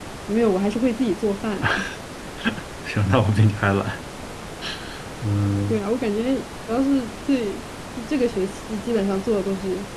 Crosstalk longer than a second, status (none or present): none